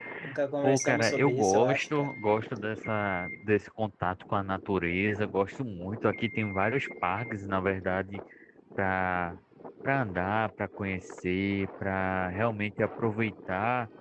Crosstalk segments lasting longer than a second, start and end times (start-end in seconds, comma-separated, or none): 0.6-2.1